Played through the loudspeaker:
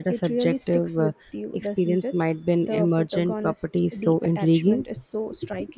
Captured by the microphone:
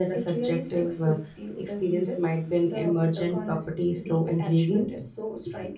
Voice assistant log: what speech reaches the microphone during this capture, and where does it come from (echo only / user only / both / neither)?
echo only